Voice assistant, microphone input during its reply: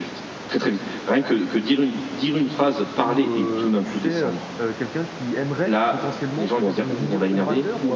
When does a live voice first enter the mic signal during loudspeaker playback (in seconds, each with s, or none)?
3.0 s